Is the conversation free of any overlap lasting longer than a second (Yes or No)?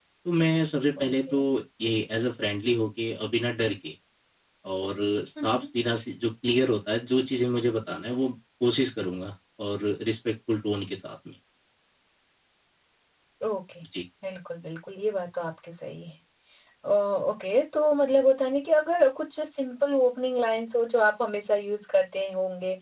Yes